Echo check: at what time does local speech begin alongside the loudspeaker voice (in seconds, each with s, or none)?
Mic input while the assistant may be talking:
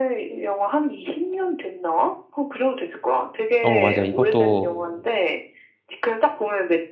3.6 s